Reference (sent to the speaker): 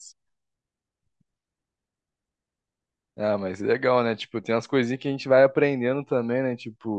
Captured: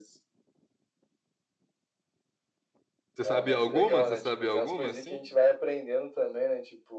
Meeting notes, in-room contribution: present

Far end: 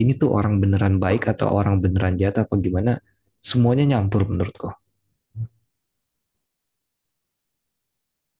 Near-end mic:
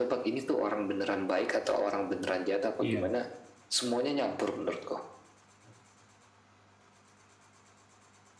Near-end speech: present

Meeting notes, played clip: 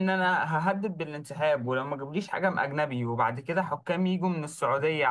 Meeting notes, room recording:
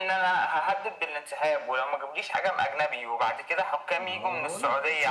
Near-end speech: present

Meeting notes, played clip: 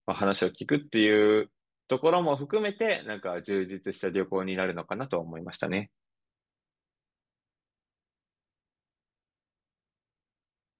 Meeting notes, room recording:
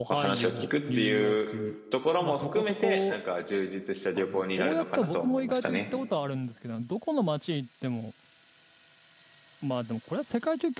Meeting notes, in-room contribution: present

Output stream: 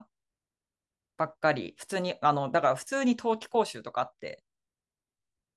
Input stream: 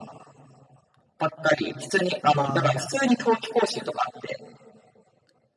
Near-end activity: present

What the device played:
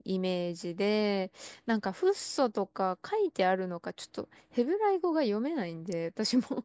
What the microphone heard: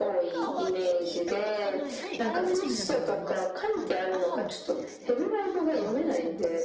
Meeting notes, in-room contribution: present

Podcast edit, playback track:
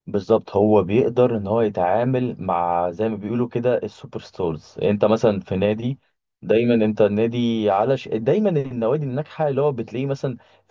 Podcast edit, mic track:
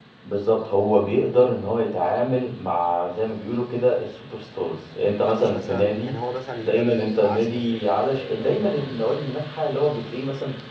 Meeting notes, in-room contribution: present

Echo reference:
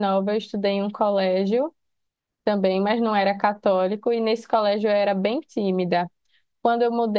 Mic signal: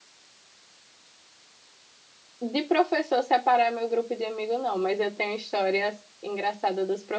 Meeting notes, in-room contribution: present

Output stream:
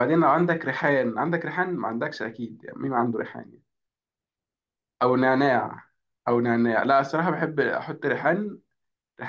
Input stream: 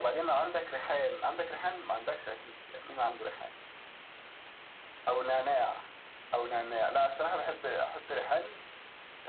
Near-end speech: none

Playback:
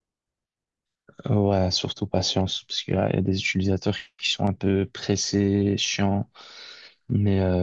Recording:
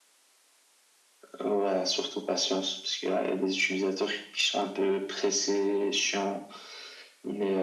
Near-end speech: none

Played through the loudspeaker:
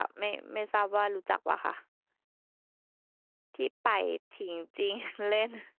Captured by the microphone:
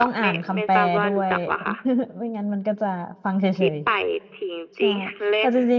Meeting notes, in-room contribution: present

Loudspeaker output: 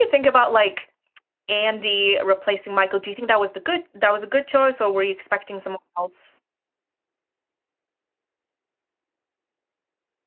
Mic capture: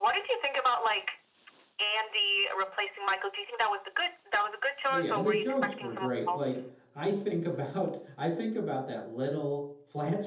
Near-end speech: present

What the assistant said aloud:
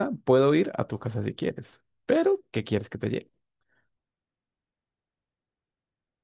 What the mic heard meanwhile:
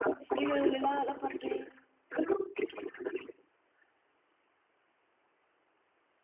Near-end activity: present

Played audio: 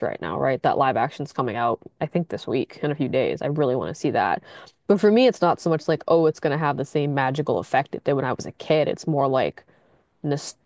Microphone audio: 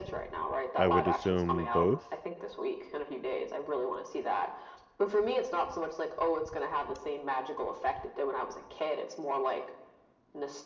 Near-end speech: present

